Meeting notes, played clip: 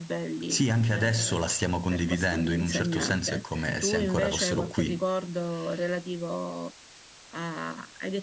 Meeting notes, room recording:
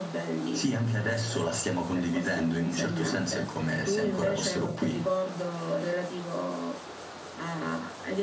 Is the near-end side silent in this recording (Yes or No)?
Yes